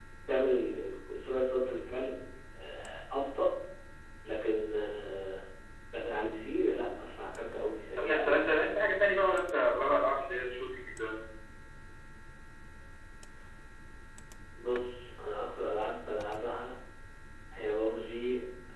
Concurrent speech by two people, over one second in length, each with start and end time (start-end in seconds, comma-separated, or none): none